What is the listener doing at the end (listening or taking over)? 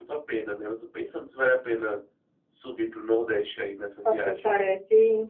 taking over